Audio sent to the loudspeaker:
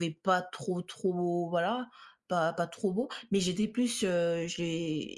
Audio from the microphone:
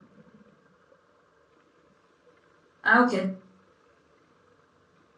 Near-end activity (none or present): present